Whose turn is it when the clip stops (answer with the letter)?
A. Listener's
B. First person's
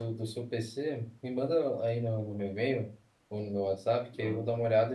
B